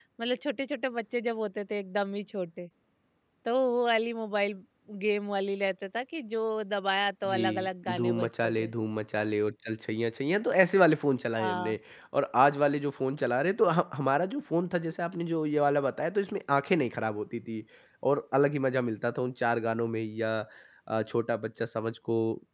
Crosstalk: present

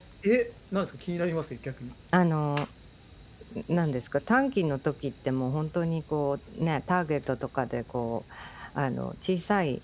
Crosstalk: none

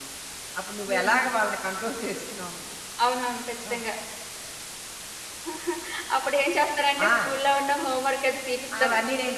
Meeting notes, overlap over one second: none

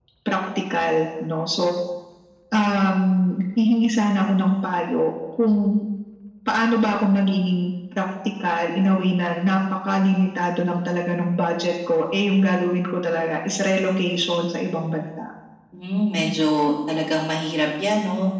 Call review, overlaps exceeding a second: none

